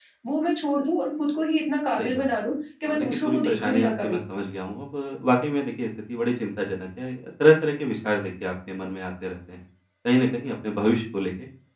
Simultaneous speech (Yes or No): Yes